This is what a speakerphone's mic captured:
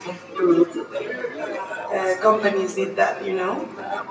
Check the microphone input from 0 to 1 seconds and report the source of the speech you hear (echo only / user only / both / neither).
echo only